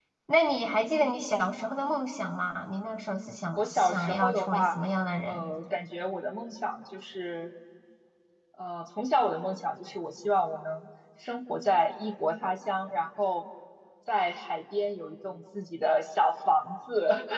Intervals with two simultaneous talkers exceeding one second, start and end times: 3.6-4.8

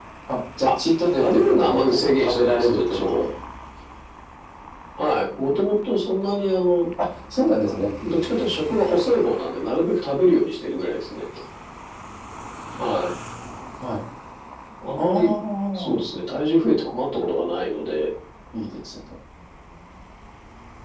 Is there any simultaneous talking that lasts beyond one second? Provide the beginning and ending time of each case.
1.2-3.2

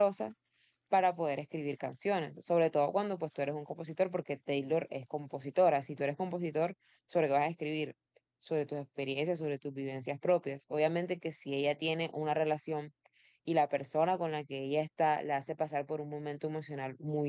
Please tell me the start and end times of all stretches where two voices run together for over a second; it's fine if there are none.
none

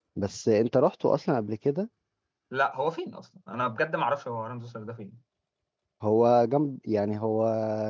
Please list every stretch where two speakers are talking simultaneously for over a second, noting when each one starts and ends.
none

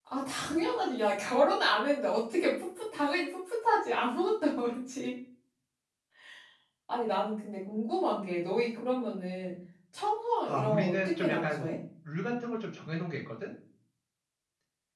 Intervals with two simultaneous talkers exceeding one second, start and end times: 10.4-11.7

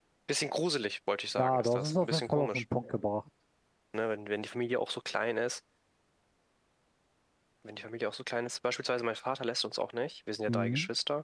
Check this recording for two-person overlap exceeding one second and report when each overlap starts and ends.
1.4-2.6

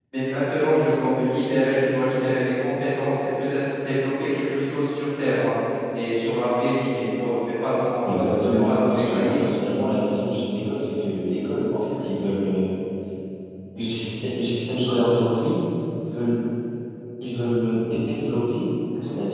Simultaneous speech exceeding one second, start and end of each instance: 8.1-9.4

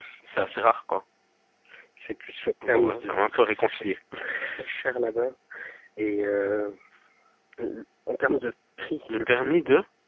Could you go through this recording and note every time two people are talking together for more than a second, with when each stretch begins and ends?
2.7-4.0

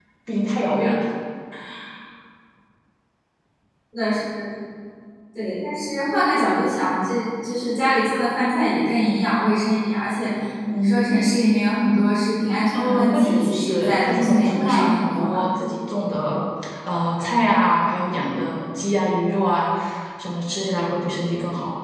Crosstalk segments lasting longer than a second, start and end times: 12.7-15.4

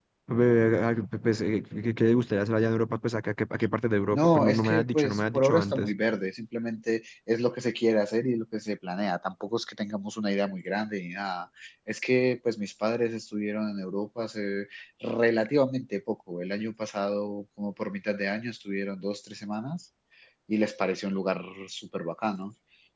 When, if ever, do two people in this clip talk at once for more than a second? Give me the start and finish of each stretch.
4.1-5.9

